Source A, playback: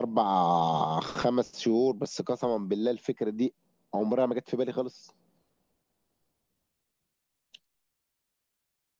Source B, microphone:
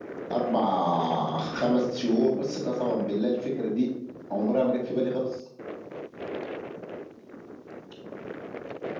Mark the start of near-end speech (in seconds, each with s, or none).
none